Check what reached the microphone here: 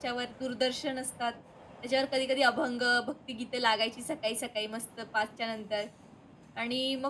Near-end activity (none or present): present